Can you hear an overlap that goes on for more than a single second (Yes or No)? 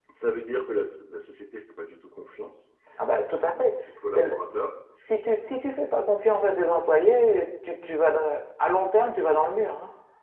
No